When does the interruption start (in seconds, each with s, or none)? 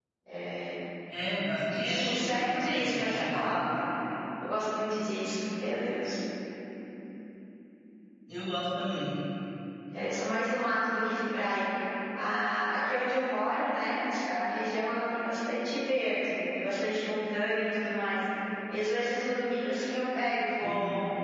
1.8 s